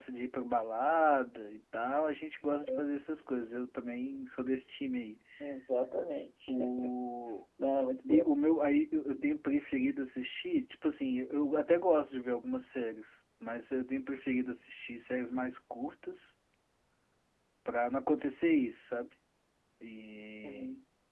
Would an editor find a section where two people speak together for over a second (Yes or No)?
No